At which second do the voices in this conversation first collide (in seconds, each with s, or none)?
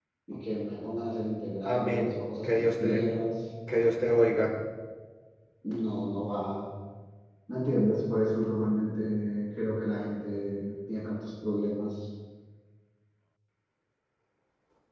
1.6 s